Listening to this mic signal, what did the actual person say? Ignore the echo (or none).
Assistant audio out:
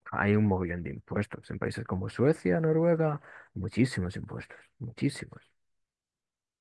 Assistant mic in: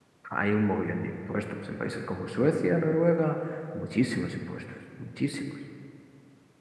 none